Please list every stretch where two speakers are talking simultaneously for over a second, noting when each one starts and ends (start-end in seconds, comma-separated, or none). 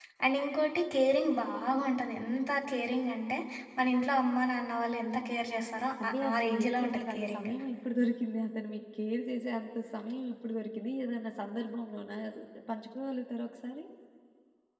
6.0-7.5